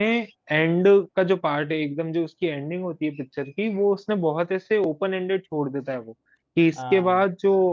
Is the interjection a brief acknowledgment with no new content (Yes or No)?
Yes